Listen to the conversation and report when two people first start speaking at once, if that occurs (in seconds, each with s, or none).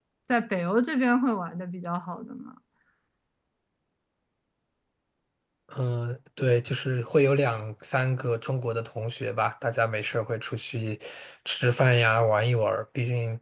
none